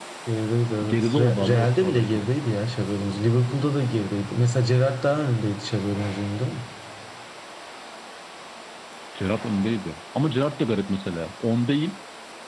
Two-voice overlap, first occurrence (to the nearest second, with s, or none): 1 s